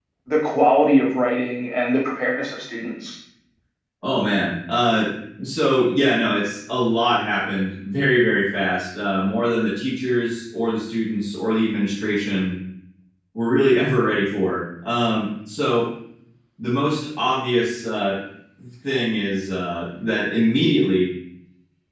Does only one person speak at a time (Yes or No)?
Yes